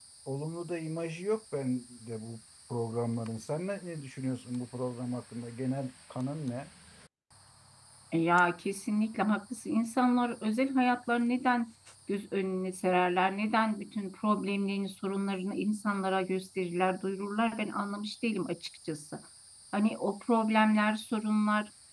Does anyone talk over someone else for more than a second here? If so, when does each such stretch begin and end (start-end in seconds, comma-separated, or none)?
none